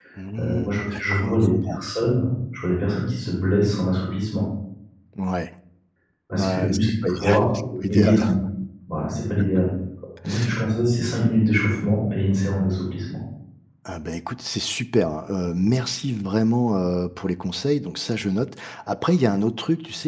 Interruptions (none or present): present